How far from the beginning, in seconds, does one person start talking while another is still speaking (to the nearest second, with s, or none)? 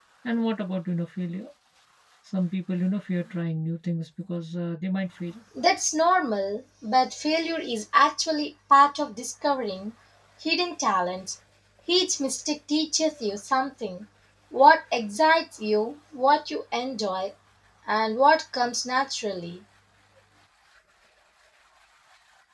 none